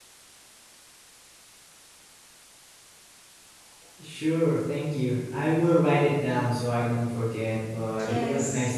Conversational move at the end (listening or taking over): taking over